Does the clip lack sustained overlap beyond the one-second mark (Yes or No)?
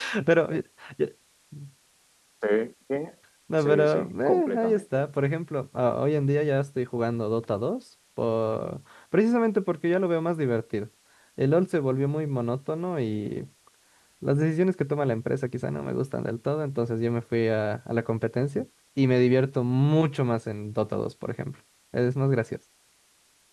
No